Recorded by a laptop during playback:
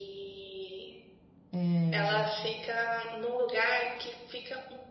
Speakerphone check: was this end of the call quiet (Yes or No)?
No